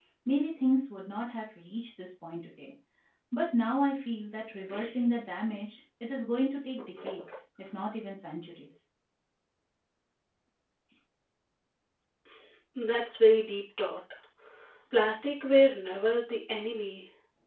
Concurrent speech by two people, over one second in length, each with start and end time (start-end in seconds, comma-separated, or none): none